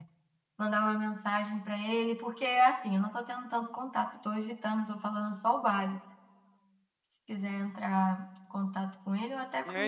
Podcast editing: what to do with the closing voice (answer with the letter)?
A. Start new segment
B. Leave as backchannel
A